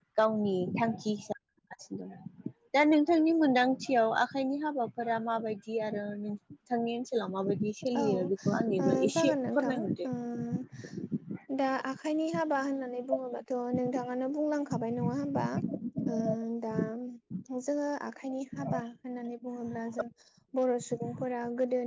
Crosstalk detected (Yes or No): Yes